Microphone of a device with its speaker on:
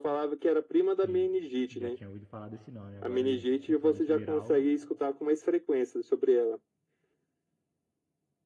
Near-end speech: present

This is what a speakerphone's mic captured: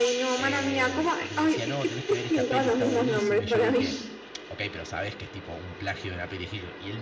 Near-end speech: present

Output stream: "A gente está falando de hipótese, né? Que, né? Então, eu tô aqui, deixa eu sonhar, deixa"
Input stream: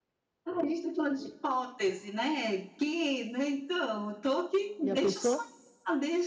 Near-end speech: present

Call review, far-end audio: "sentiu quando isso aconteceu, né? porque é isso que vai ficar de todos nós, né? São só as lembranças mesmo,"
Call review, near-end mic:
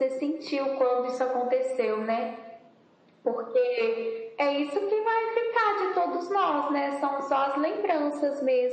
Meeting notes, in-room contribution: none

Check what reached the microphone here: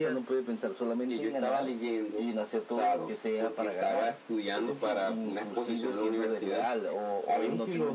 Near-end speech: none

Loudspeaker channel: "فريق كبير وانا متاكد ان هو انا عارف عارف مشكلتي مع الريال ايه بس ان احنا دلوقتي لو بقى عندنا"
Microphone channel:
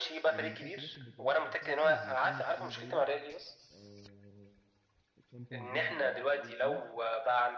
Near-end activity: present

